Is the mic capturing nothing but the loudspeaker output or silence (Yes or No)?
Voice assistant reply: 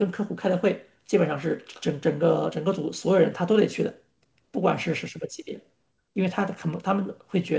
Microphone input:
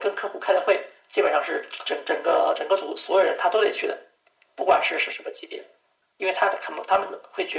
Yes